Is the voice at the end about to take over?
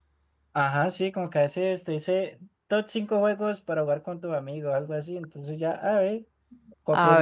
No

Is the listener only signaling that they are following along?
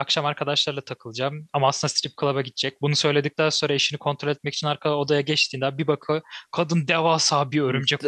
No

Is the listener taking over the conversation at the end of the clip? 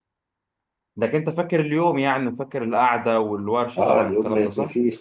Yes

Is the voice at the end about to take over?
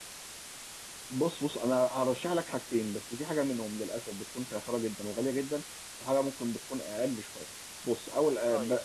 No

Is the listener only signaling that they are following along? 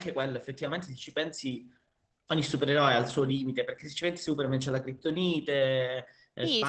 No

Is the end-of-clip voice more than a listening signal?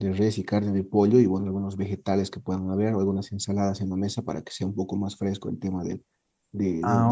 Yes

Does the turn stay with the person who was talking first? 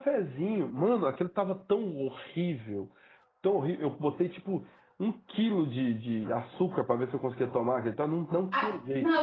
No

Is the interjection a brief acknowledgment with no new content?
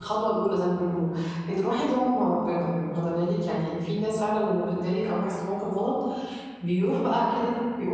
Yes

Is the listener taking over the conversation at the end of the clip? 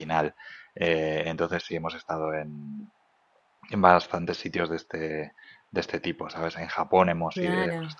No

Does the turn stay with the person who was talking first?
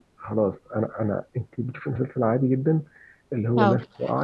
Yes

